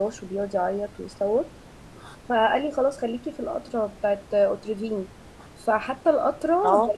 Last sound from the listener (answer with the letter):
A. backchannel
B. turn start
A